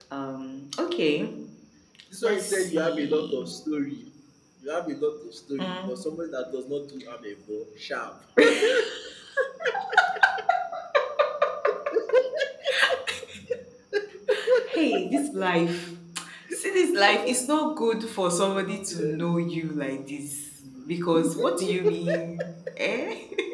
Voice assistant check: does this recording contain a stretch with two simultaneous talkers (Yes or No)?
Yes